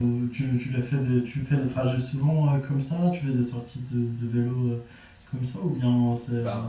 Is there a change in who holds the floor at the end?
No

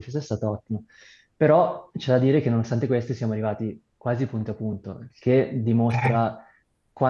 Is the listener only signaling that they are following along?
Yes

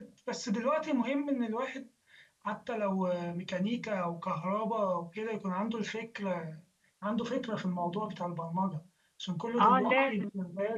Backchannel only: No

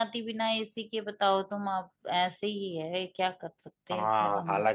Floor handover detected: Yes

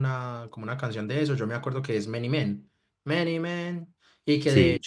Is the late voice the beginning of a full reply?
No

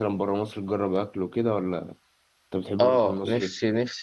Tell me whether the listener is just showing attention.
No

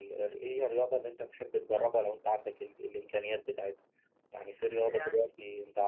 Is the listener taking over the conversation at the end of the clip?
No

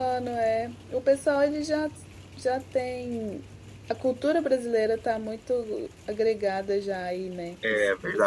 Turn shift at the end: Yes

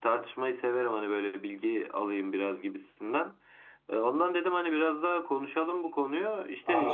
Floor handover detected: No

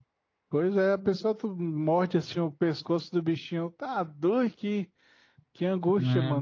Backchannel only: No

